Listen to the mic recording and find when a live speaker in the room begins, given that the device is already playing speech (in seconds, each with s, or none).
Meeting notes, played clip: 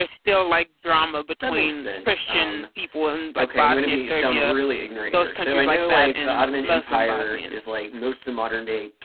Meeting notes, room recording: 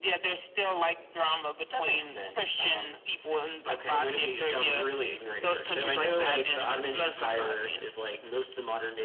none